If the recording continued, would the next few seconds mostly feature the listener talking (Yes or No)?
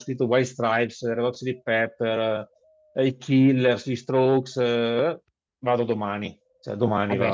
Yes